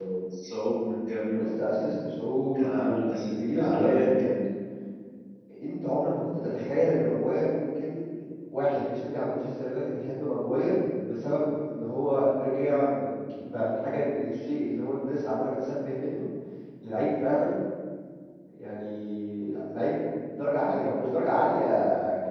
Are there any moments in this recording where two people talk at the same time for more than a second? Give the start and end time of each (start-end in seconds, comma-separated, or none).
2.6-4.2